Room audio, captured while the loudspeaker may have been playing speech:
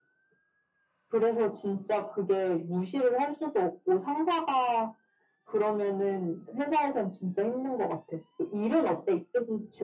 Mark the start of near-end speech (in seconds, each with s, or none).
none